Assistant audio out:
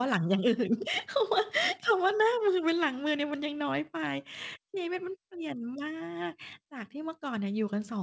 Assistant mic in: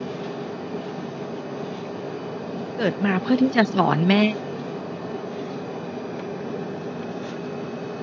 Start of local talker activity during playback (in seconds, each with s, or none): 2.8 s